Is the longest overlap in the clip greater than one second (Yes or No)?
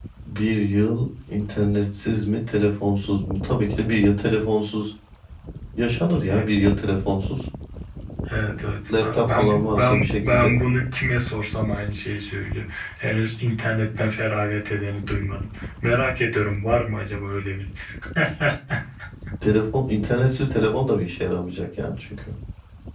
Yes